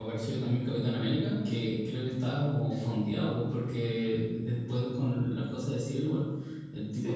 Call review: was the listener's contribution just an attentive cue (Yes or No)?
Yes